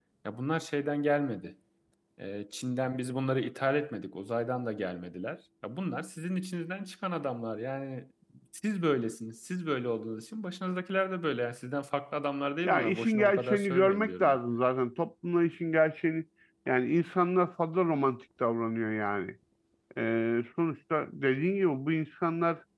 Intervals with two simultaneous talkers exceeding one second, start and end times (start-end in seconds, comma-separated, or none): 12.6-14.4